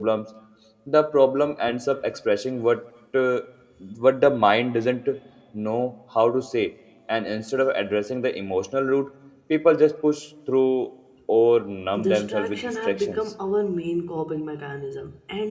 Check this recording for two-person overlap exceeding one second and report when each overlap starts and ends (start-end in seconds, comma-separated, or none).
12.0-13.2